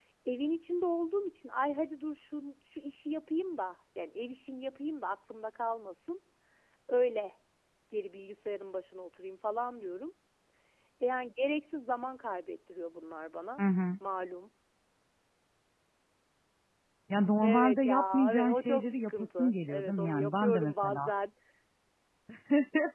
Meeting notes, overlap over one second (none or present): present